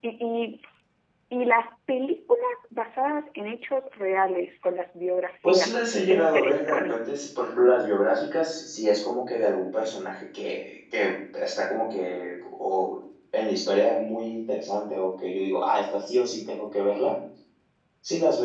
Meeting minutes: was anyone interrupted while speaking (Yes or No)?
Yes